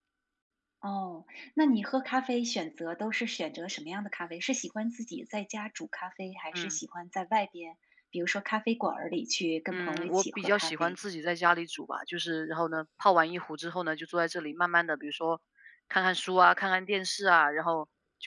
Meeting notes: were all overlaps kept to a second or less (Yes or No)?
No